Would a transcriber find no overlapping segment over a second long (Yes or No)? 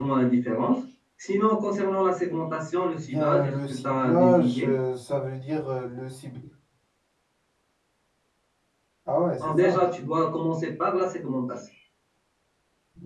No